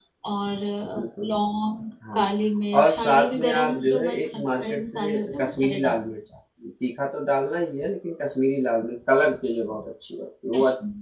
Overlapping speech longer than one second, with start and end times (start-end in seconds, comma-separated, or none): 2.8-6.2